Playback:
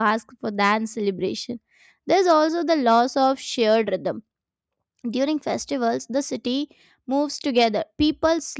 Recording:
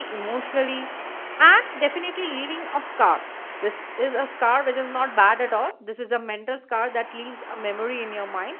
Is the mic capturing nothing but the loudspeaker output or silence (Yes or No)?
No